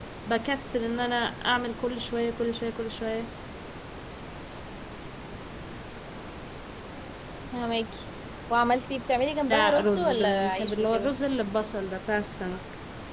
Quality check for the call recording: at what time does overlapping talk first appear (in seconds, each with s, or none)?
9.5 s